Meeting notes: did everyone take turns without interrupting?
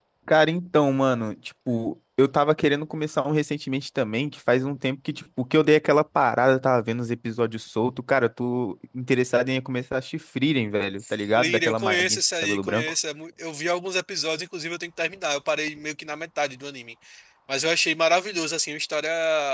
No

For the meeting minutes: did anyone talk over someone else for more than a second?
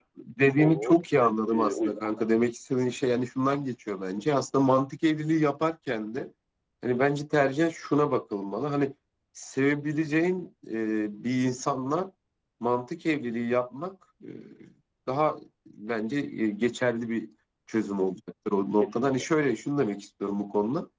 Yes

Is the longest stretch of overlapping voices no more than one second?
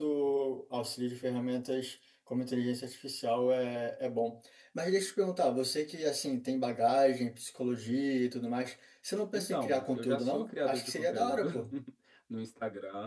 No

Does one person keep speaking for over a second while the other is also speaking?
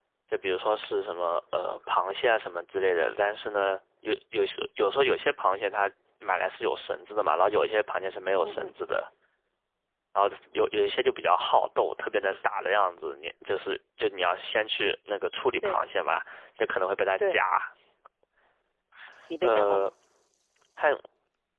No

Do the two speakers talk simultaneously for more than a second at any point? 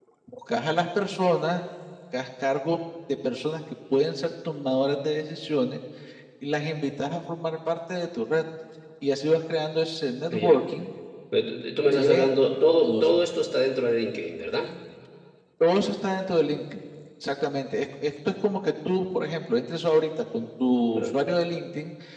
No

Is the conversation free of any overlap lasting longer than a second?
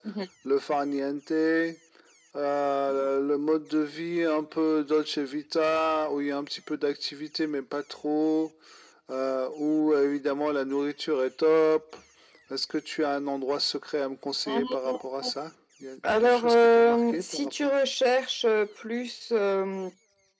No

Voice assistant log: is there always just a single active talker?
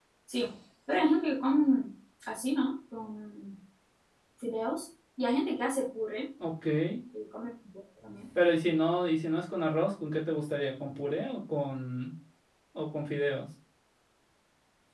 Yes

